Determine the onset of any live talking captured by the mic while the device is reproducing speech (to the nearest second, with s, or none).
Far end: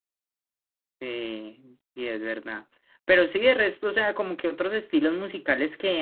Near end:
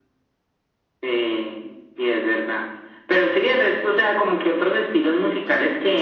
none